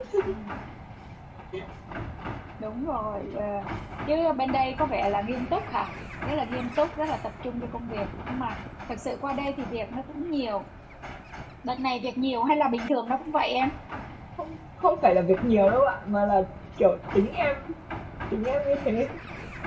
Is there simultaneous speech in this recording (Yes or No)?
No